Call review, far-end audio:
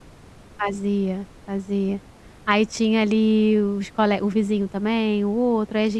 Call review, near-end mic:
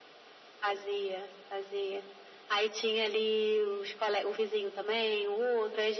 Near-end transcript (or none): none